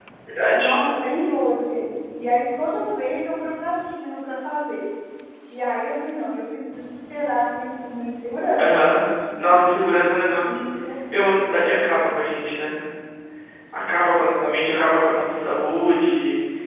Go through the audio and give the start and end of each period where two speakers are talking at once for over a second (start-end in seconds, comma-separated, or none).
none